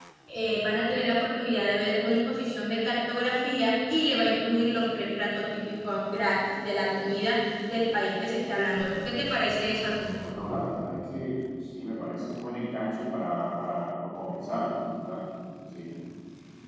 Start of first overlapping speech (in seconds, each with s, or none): none